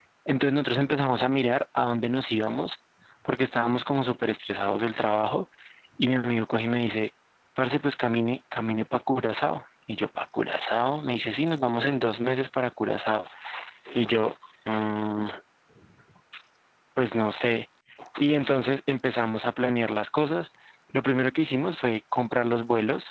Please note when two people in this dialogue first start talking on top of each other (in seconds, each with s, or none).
none